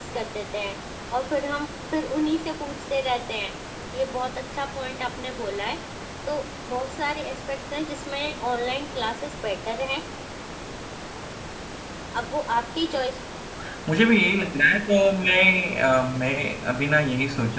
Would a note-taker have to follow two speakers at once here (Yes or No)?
No